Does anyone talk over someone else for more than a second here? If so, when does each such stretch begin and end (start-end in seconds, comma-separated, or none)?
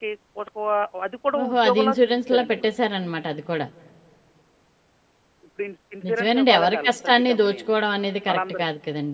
1.4-2.7, 6.1-7.7